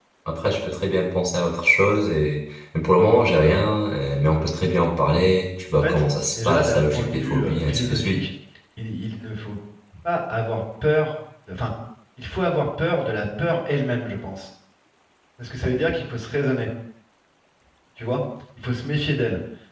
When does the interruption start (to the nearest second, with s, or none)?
6 s